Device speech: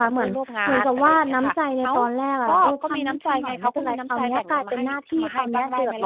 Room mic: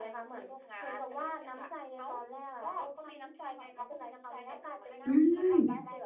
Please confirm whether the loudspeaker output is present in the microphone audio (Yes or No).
Yes